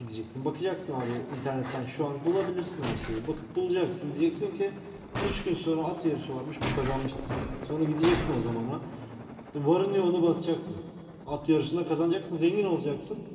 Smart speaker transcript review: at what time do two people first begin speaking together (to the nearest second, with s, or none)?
none